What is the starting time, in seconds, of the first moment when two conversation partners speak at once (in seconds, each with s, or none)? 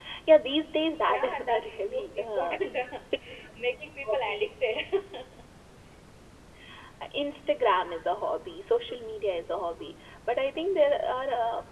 1.1 s